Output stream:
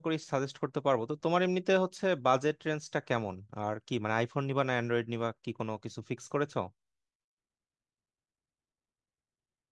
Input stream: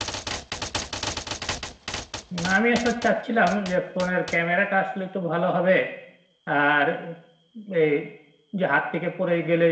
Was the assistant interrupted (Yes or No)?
Yes